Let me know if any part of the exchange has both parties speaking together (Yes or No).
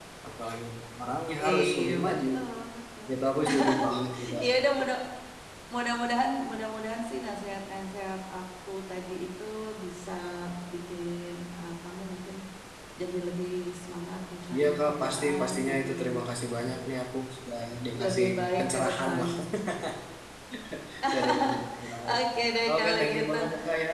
Yes